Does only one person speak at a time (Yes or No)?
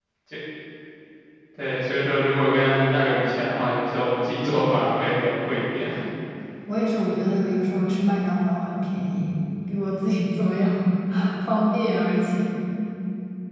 Yes